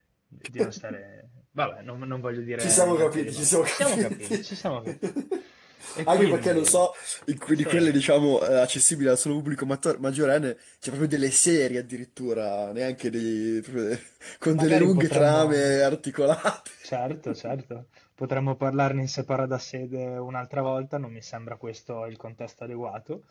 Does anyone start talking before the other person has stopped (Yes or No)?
Yes